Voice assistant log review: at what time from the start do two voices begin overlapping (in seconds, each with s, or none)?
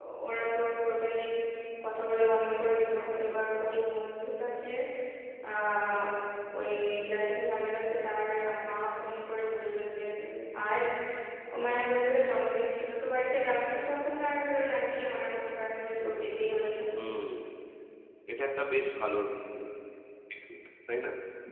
none